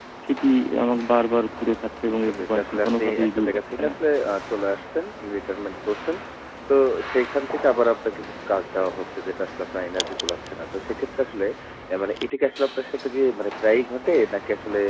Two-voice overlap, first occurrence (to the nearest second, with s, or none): 2 s